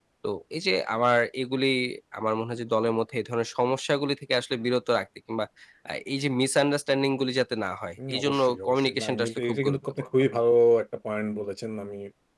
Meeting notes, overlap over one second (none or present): present